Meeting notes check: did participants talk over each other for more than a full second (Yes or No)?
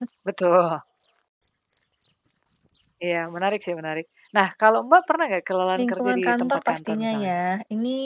Yes